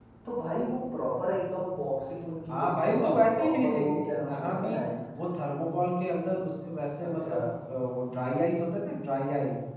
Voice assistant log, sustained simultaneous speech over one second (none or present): present